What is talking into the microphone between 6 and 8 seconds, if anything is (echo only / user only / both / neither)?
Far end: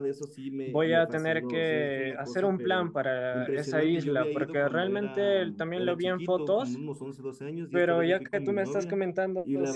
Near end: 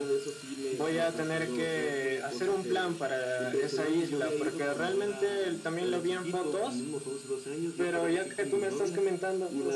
echo only